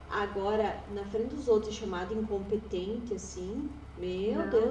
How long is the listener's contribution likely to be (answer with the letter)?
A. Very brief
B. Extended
B